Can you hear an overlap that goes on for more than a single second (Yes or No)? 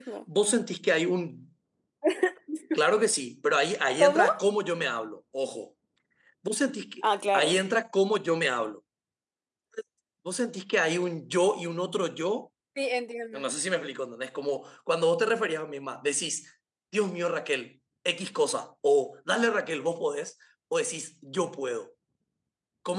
No